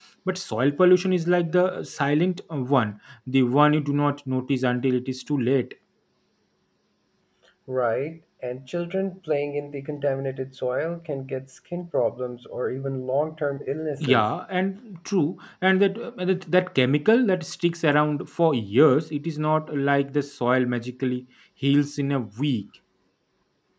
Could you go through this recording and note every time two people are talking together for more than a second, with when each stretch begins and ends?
none

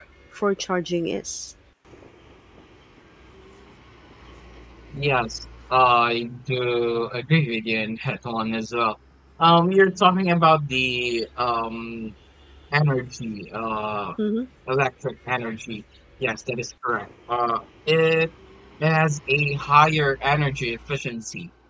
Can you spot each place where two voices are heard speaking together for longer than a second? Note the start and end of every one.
none

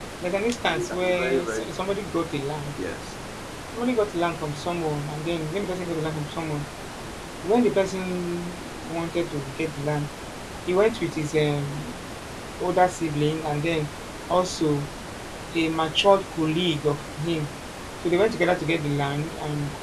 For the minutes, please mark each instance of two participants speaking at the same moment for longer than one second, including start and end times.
0.7-2.2

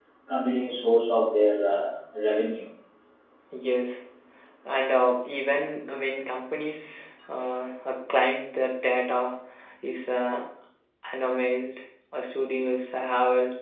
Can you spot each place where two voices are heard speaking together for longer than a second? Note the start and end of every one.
none

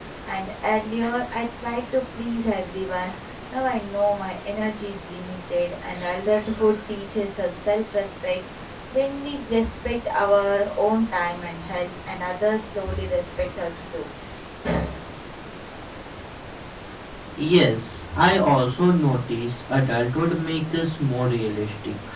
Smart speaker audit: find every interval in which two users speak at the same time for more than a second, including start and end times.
none

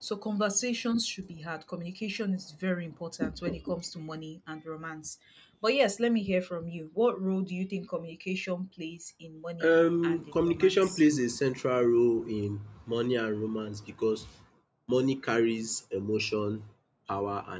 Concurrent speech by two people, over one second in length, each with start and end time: 9.7-11.0

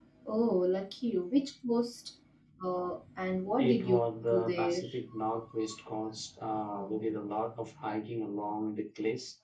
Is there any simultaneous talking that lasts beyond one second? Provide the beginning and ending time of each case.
3.6-4.8

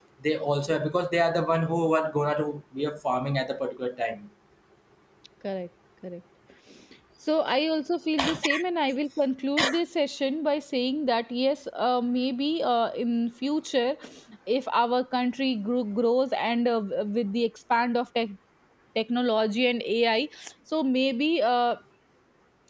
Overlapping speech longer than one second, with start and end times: none

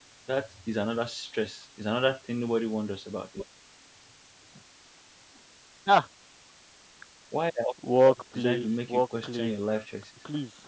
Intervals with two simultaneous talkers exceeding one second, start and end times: 8.1-9.6

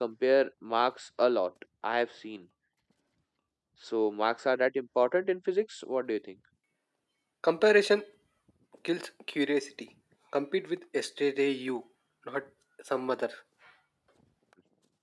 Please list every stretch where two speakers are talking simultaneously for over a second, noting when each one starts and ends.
none

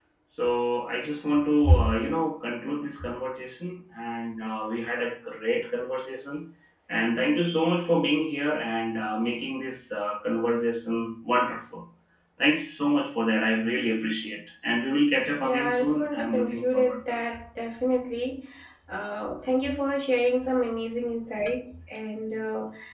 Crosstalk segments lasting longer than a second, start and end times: 15.4-17.2

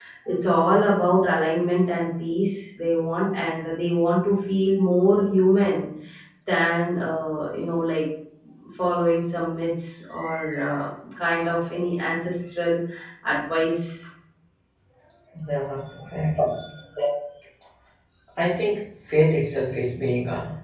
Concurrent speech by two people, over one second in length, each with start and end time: none

